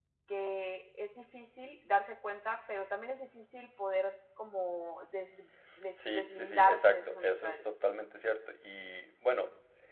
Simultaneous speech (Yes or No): Yes